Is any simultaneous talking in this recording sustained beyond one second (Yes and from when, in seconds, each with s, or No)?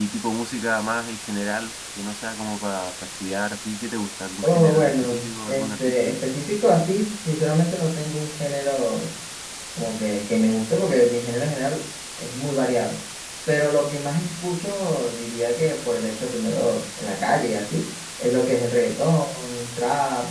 Yes, from 4.4 s